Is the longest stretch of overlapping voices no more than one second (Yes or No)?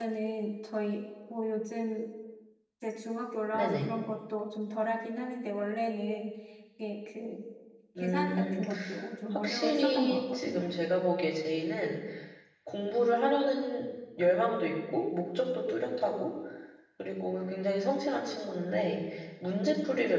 No